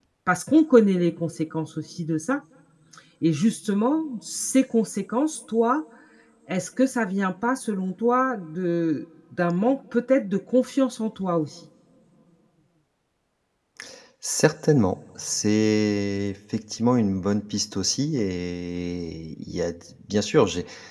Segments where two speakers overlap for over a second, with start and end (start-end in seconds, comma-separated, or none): none